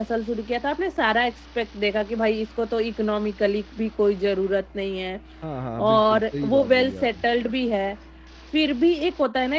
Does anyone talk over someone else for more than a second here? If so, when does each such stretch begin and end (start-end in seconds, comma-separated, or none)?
5.9-7.1